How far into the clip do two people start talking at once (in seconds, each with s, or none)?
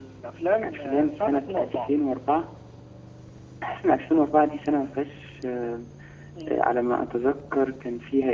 0.6 s